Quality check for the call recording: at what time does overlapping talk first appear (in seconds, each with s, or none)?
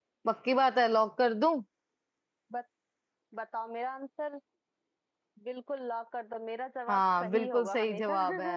6.9 s